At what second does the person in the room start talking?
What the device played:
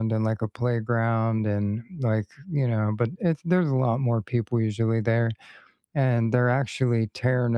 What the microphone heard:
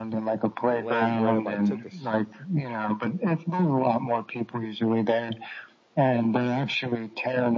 0.7 s

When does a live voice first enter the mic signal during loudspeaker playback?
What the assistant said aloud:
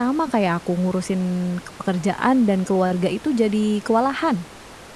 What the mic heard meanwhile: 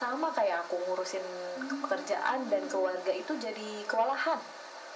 1.6 s

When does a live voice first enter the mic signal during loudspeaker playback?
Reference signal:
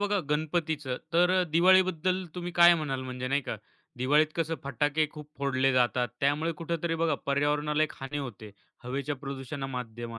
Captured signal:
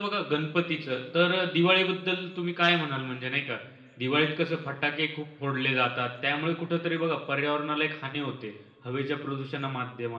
none

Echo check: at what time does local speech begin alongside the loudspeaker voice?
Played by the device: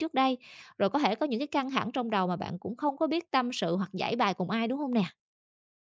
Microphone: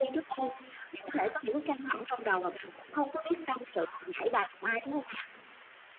none

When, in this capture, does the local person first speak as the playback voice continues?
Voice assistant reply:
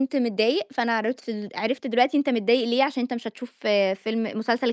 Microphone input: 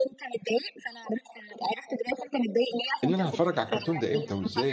3.0 s

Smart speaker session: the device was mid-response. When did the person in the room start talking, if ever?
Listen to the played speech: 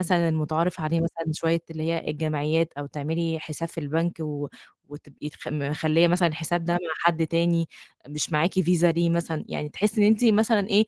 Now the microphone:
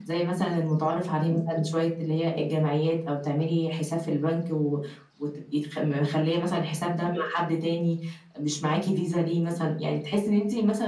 none

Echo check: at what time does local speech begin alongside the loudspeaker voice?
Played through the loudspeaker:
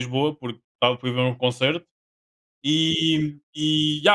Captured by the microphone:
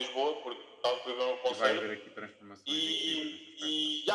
1.5 s

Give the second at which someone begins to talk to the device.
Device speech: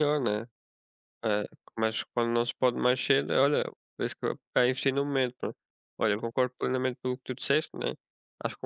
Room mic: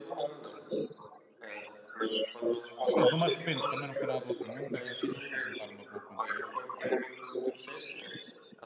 2.9 s

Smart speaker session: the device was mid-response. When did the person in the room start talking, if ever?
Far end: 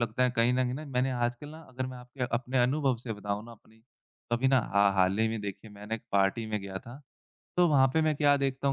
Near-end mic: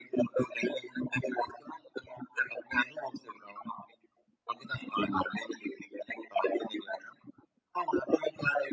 none

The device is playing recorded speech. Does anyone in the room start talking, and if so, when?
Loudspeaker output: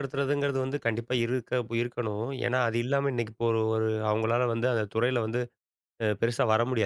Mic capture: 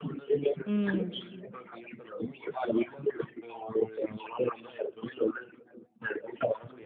0.7 s

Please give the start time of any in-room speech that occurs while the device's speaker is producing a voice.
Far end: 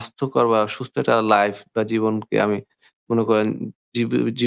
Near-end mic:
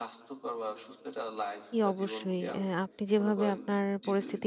1.7 s

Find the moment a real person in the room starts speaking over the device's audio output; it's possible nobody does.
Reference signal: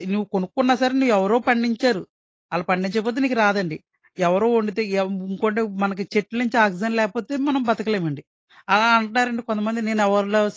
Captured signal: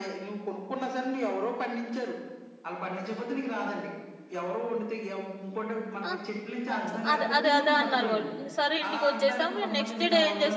6.1 s

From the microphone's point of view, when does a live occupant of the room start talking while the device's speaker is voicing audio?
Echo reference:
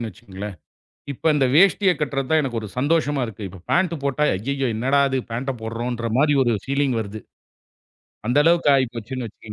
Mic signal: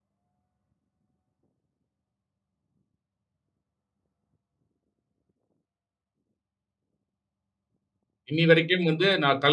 8.3 s

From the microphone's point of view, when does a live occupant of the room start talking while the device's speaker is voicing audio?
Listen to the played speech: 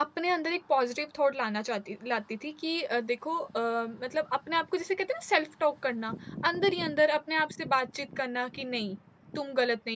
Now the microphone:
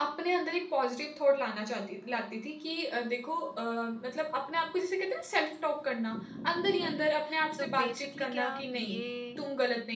6.8 s

